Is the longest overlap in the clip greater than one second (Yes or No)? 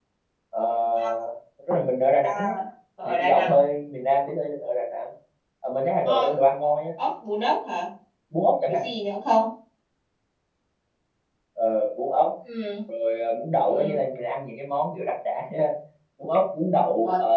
No